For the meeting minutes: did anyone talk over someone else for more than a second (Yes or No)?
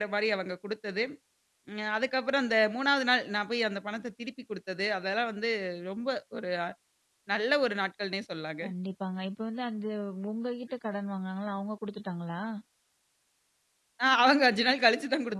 No